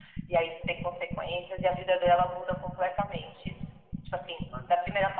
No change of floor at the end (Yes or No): Yes